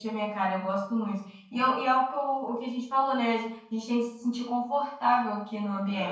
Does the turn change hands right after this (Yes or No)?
Yes